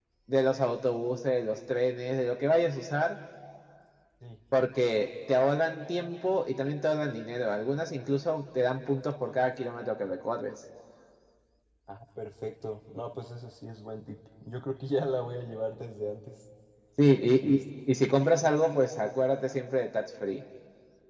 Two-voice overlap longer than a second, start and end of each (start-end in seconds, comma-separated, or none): none